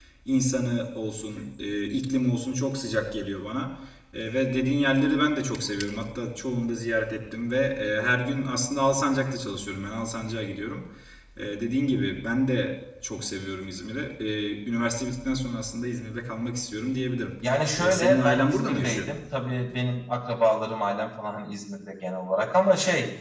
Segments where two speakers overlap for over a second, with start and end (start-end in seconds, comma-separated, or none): 17.8-19.1